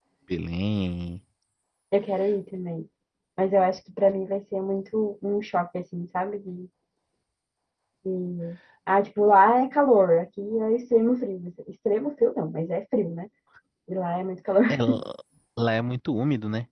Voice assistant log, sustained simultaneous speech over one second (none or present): none